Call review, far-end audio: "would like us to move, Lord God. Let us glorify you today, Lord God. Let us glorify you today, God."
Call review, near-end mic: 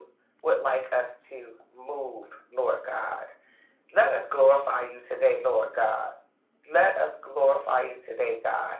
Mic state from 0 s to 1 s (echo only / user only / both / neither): echo only